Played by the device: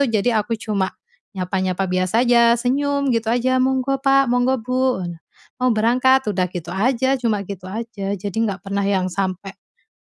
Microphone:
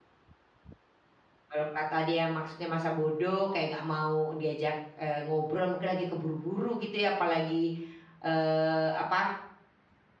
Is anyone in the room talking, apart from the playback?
Yes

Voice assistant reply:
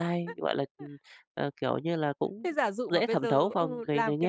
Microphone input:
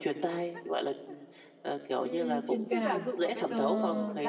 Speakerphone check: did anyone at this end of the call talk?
Yes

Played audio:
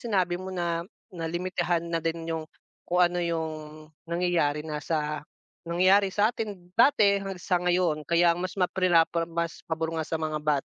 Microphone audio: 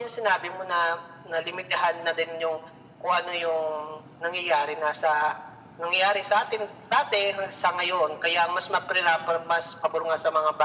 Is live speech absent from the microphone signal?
Yes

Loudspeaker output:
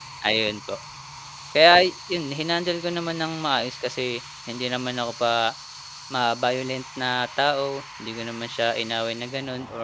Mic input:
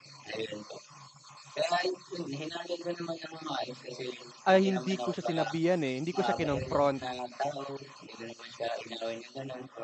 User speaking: Yes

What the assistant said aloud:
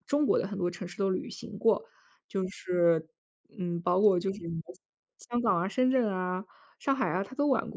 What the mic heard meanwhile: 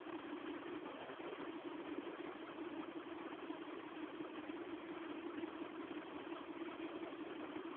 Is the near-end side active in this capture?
No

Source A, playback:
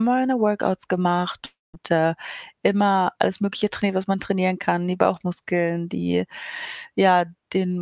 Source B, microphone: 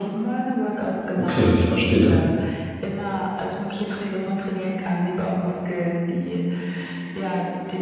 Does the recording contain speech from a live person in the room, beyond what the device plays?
Yes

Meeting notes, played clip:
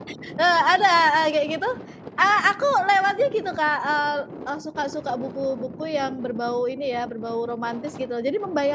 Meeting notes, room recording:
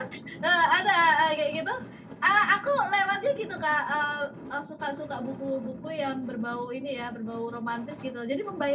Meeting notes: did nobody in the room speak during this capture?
Yes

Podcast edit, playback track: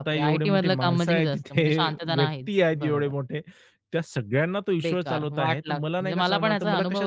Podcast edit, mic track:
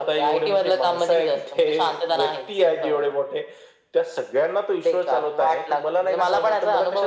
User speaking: No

